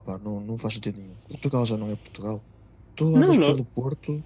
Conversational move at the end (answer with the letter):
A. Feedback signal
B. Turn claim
A